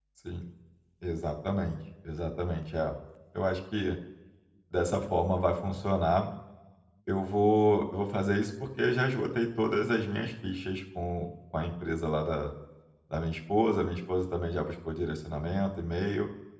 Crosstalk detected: No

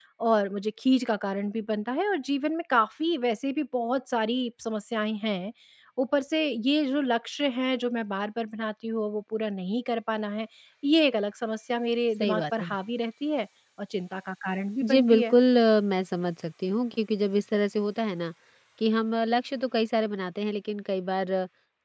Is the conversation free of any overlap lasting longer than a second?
Yes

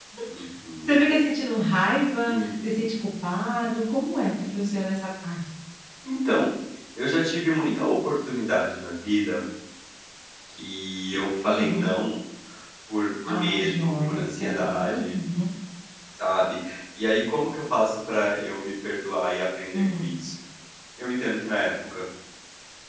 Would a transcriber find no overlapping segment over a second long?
No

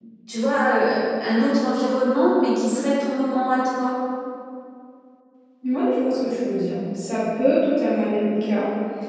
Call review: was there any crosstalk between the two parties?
No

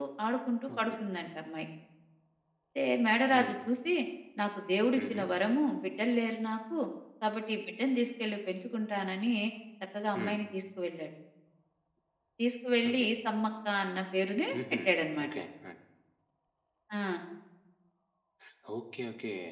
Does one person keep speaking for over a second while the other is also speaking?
No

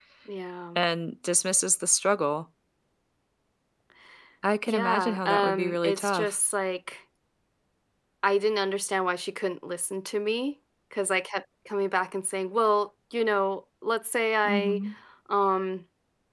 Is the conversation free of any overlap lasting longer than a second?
No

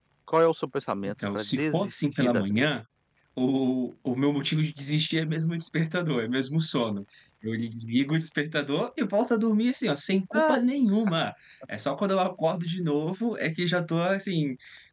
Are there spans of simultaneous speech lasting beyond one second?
Yes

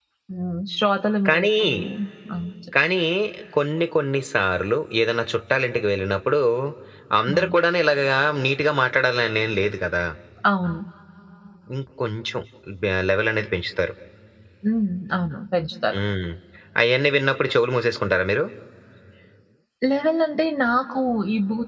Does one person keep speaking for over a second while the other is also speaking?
No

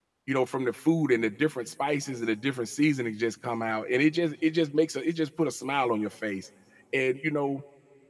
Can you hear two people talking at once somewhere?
No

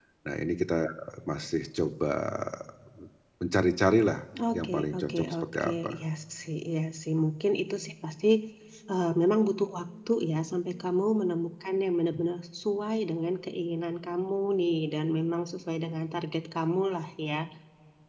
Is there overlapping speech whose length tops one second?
Yes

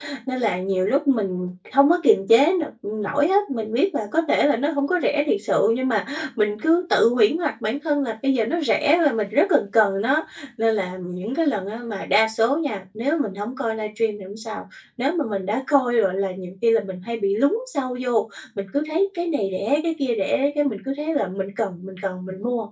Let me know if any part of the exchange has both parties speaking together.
No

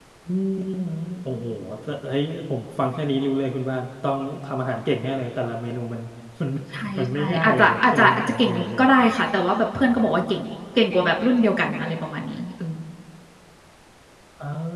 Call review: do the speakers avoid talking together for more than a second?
No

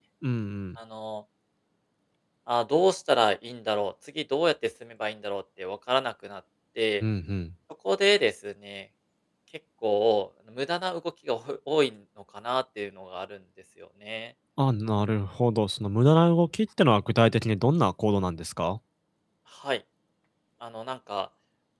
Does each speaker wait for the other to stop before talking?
Yes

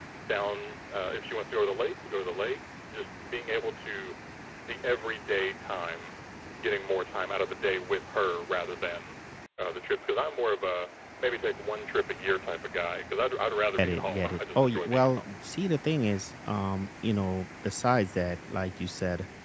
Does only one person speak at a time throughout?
No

